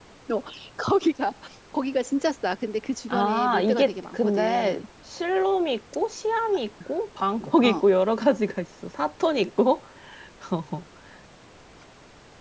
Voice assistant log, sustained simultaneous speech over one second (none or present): present